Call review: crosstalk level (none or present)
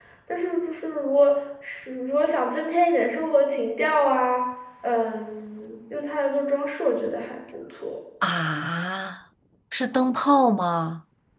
none